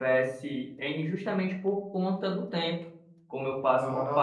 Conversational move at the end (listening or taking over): listening